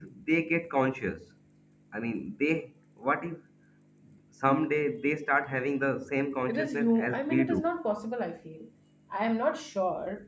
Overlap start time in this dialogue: 6.5 s

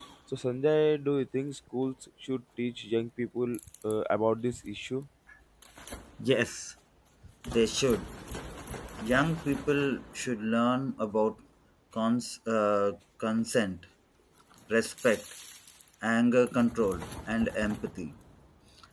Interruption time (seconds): none

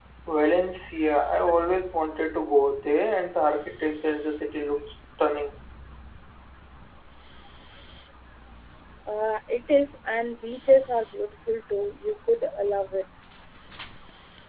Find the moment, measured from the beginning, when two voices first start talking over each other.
none

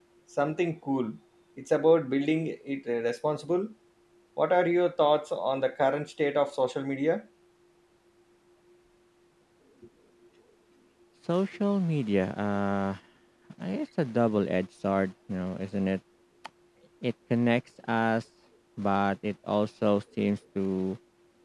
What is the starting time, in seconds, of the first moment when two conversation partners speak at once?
none

